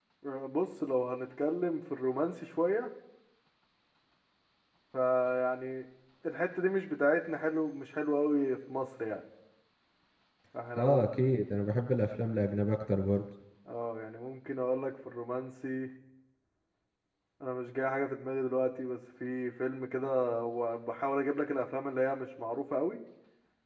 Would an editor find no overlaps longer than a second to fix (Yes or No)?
Yes